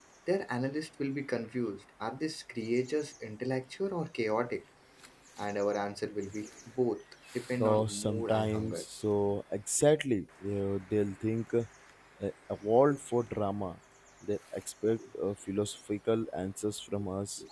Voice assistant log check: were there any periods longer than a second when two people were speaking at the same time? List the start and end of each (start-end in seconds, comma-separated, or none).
7.6-8.8